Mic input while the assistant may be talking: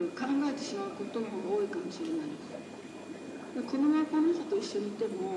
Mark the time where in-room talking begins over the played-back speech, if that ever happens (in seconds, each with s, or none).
none